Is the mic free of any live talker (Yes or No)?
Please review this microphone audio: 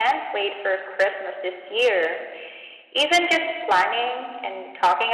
Yes